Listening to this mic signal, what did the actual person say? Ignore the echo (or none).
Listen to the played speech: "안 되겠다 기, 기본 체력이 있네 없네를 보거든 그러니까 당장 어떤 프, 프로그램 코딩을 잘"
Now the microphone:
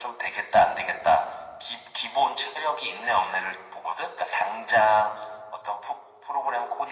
none